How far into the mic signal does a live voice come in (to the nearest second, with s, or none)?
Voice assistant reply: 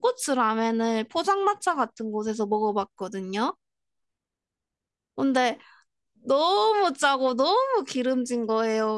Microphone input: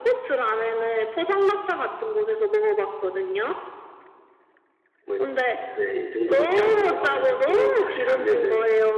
5 s